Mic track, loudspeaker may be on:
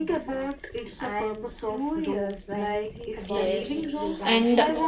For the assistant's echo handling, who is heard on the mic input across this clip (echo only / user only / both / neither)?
both